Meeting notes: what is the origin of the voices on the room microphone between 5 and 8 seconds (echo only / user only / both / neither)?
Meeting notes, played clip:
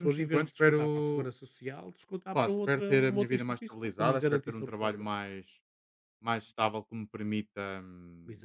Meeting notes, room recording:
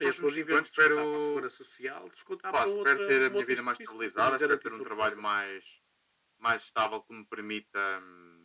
echo only